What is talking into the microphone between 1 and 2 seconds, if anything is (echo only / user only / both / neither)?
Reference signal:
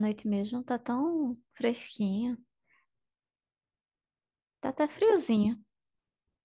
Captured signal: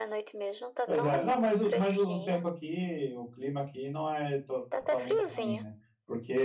both